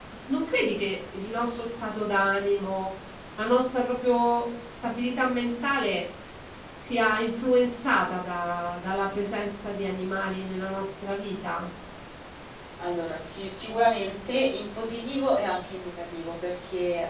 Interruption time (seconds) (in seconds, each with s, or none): none